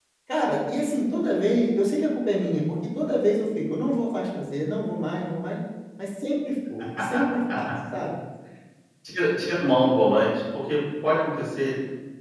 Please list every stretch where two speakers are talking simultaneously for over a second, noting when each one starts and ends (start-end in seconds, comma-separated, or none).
none